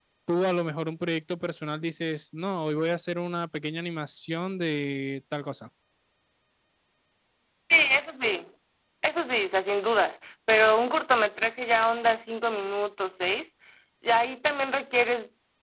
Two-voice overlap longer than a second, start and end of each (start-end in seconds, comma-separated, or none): none